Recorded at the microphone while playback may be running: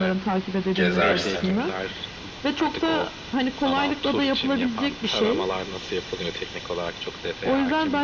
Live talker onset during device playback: 0.7 s

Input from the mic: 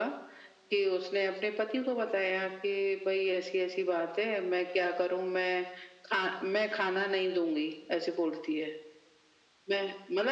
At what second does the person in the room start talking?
none

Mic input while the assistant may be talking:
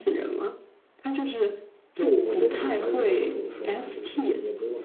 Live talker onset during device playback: 1.9 s

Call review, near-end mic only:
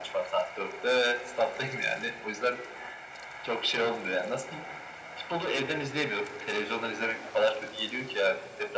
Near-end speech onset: none

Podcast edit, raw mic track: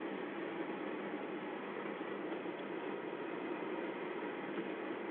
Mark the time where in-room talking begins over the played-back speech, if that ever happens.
none

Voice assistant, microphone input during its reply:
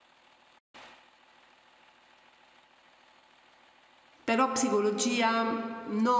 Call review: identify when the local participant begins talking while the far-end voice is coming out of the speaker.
4.2 s

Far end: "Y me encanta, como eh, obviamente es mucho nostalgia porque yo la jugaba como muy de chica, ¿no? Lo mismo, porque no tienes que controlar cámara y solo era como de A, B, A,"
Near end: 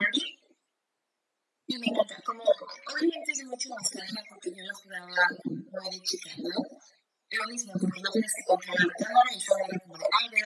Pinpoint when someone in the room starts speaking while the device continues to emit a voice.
none

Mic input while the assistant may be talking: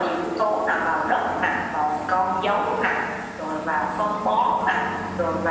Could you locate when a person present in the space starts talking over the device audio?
none

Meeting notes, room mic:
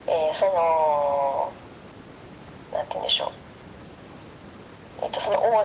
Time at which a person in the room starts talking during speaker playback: none

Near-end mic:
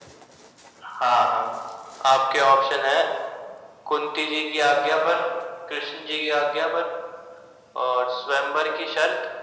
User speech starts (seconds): none

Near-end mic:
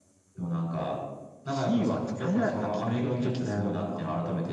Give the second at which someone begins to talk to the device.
1.4 s

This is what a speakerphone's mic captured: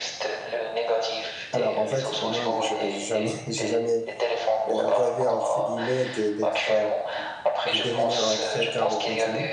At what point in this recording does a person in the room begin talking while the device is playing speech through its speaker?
1.5 s

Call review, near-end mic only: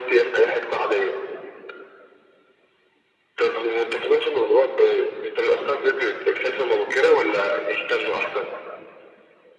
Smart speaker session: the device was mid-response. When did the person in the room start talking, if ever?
none

